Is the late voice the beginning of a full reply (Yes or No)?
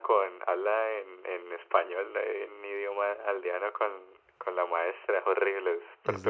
Yes